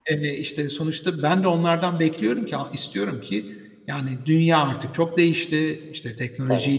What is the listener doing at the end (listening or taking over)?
listening